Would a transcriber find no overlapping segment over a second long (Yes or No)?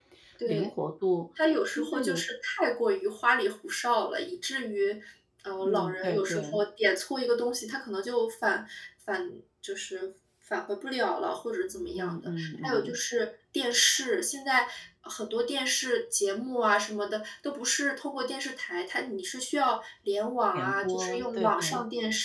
No